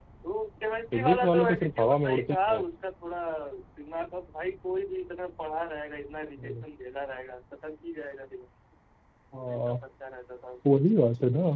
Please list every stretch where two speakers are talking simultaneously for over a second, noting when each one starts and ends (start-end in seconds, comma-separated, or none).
0.9-2.6